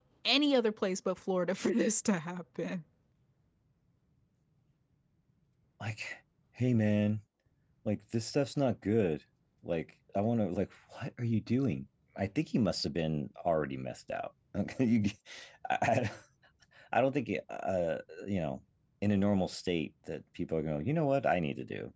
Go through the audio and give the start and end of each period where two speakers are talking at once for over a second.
none

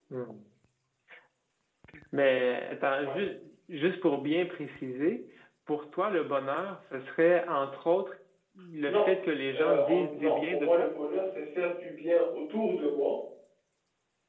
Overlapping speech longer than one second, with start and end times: 9.5-10.9

